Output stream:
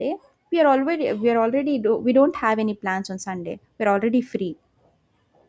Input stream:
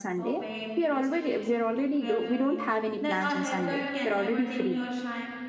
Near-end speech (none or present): present